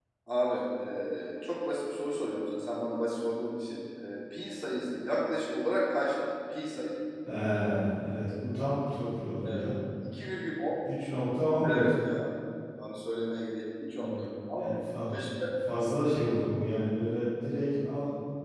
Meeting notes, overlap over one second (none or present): none